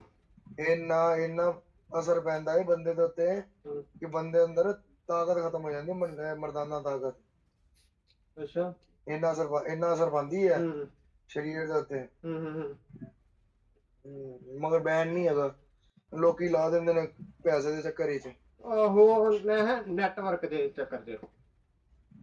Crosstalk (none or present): none